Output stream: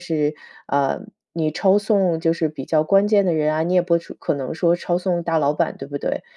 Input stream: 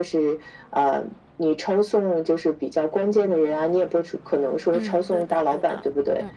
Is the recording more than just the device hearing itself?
Yes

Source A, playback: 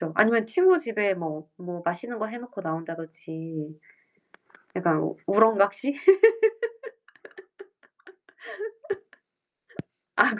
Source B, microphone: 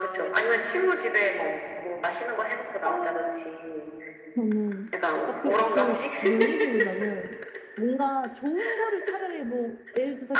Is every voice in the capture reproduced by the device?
No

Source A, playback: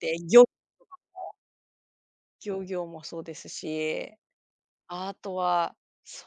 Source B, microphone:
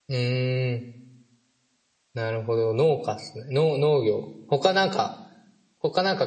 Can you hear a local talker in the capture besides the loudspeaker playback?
Yes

